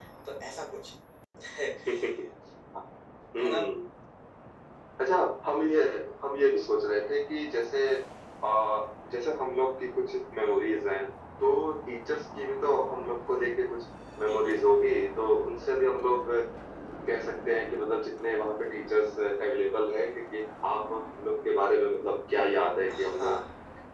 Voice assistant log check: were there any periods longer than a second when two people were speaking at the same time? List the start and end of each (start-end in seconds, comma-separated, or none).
none